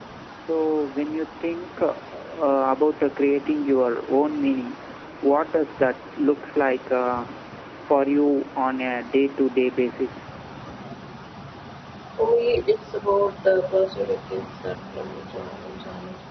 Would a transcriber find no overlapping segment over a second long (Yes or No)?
Yes